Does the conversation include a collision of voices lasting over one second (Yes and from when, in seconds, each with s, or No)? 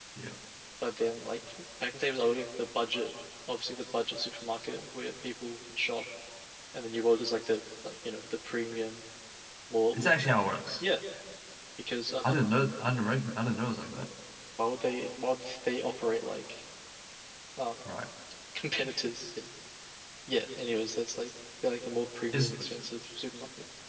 No